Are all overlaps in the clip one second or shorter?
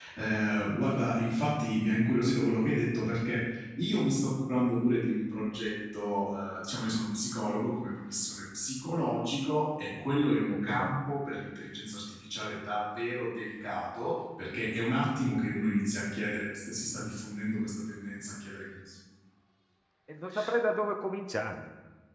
Yes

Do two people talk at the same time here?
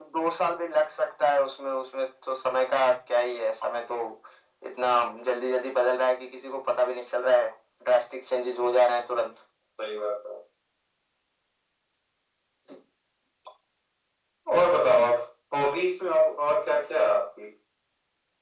No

